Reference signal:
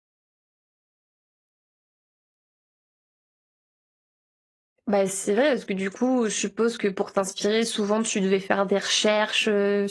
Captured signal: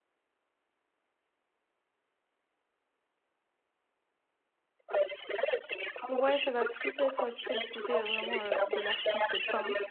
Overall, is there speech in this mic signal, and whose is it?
both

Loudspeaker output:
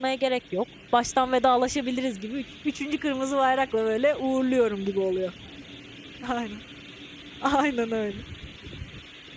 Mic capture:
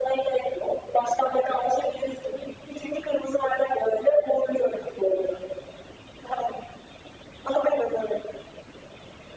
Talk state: echo only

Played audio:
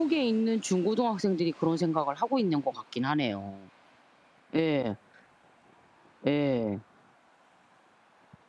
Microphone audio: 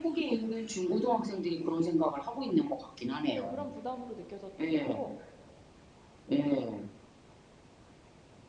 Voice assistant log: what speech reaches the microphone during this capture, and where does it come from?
both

